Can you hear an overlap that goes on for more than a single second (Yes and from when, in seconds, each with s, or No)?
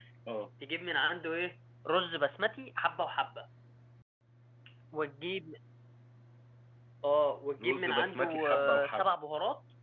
Yes, from 7.6 s